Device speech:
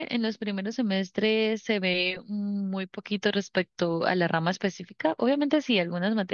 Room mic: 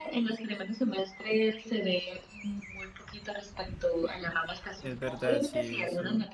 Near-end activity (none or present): present